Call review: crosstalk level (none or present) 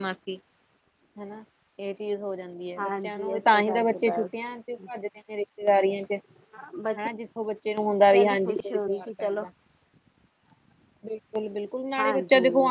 present